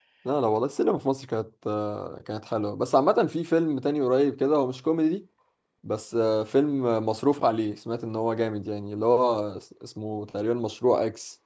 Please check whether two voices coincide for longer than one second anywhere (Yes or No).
No